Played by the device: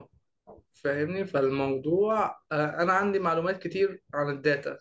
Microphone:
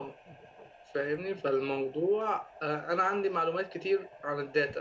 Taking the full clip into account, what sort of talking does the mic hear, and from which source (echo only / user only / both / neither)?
echo only